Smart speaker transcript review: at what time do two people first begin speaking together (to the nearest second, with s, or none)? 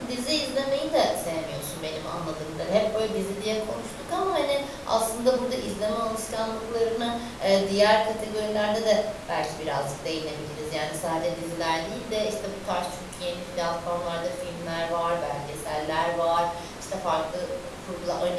none